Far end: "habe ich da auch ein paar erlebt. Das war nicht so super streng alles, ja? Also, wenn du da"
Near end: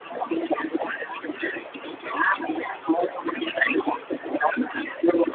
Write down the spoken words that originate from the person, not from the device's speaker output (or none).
none